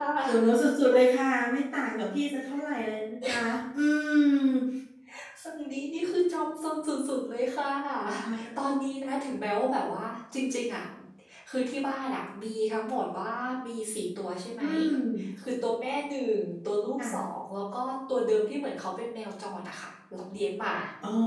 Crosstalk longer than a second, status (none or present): none